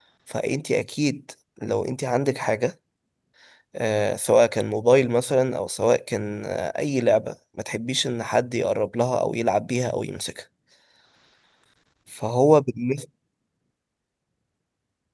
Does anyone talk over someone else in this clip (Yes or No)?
No